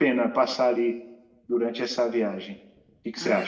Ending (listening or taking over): taking over